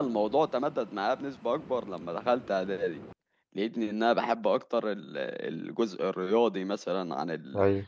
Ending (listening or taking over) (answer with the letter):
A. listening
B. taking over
A